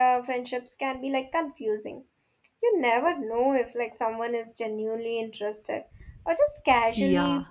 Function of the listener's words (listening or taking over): taking over